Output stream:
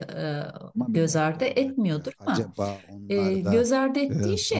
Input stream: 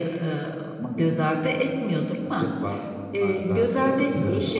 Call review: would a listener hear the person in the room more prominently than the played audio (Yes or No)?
No